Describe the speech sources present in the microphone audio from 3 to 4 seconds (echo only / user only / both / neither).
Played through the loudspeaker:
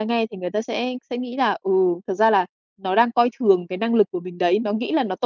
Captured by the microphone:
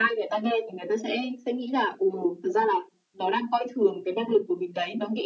echo only